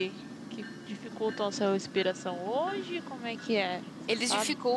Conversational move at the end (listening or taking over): taking over